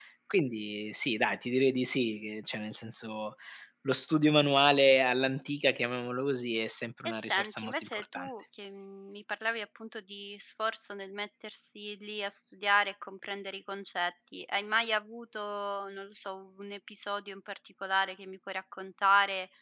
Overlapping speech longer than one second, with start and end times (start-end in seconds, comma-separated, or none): 7.0-8.3